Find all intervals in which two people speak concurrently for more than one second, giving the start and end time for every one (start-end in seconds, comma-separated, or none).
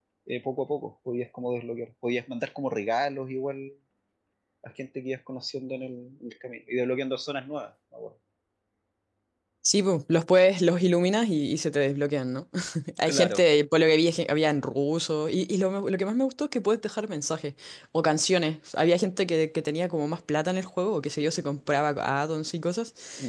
none